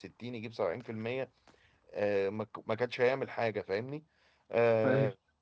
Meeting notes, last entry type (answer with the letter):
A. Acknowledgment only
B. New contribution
A